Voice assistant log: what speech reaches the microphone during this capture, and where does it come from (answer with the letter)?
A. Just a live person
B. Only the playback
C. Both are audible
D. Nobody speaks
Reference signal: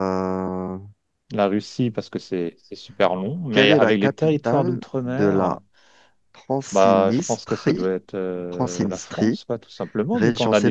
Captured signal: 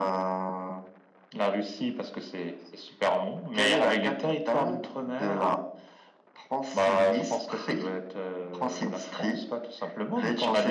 B